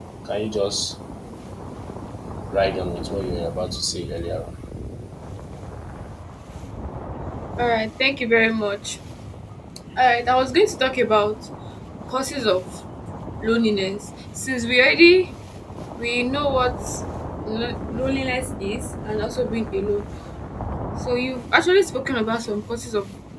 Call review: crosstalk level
none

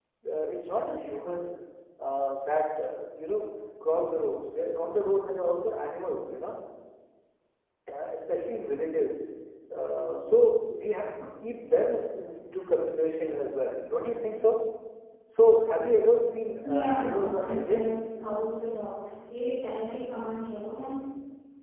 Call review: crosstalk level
present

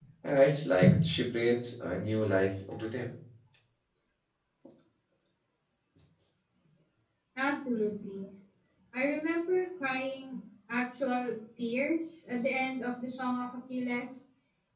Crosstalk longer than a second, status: none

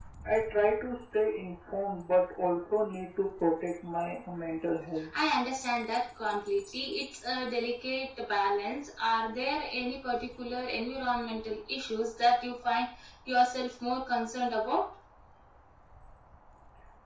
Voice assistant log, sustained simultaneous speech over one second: none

